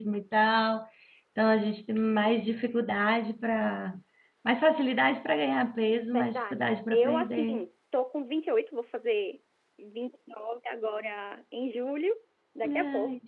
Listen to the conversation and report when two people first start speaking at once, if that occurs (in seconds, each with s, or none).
6.1 s